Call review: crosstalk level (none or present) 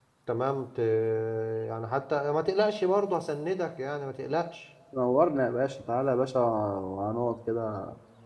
none